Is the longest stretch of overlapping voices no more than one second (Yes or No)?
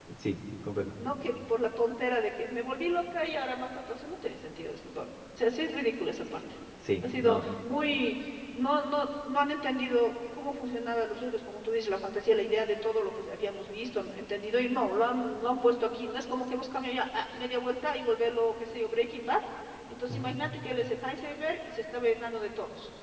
Yes